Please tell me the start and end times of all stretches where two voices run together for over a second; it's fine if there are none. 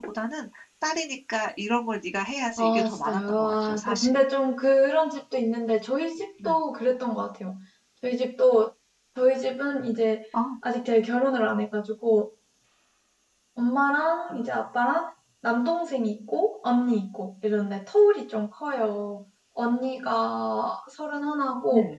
2.6-4.2

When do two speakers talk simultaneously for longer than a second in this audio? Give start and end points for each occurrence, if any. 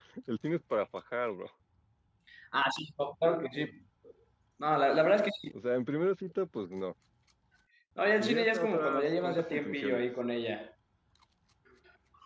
8.2-10.0

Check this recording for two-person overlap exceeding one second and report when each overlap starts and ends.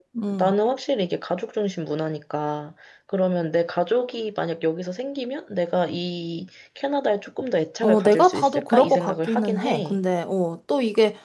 7.8-10.0

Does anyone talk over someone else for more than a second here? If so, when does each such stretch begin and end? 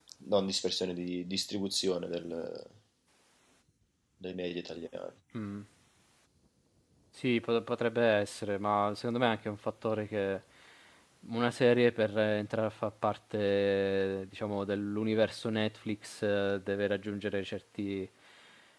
none

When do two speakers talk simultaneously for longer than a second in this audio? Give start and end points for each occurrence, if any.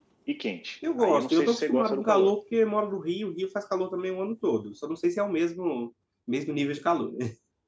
1.0-2.3

